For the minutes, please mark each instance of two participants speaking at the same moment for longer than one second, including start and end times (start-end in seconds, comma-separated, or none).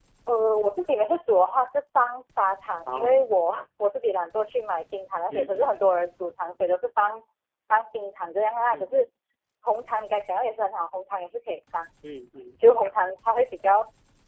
none